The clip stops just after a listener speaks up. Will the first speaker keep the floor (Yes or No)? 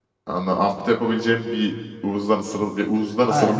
No